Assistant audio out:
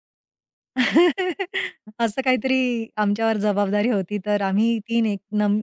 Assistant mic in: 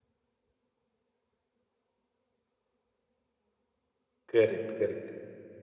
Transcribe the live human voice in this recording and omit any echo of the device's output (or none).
करेक्ट, करेक्ट.